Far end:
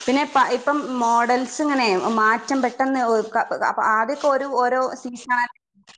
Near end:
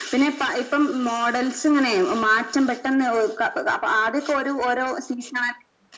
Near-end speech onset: none

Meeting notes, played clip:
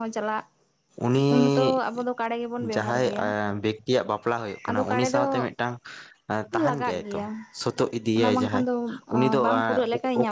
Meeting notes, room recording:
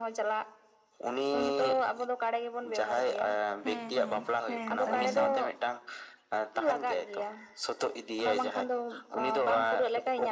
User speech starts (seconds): 3.6 s

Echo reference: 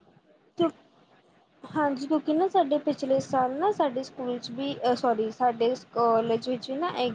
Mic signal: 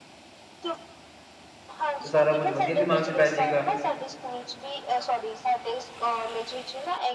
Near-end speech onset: 2.0 s

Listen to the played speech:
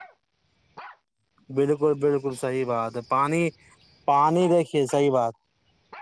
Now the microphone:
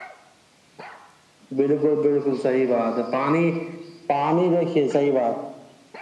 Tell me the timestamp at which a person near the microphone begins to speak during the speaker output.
none

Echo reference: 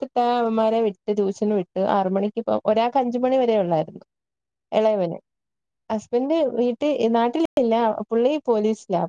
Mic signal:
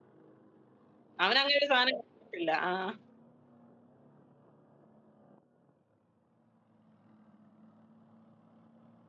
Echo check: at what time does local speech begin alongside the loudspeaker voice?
1.2 s

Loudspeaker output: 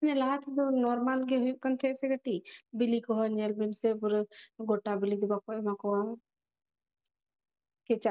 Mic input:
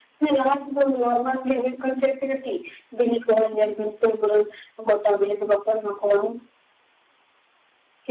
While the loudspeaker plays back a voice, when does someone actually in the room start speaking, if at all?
none

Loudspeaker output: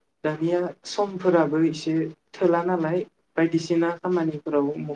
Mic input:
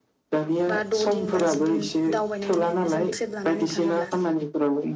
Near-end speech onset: 0.7 s

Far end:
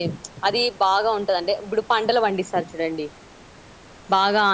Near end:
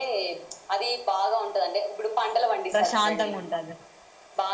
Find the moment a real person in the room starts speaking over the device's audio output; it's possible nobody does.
2.7 s

